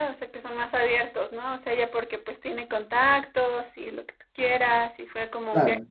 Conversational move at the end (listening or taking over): listening